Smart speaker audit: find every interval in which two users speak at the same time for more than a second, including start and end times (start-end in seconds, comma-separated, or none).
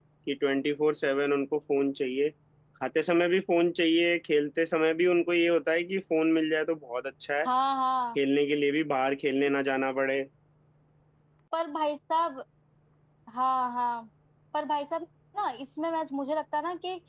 none